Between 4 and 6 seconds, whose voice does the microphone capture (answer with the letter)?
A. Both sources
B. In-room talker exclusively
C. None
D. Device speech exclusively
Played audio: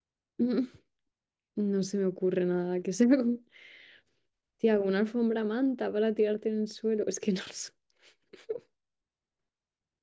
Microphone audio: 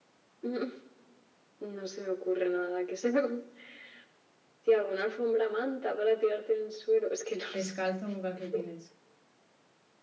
D